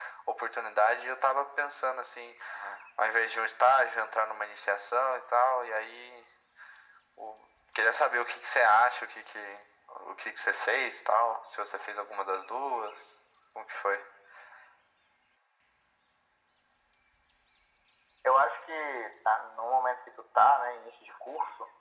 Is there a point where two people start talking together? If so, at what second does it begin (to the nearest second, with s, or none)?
none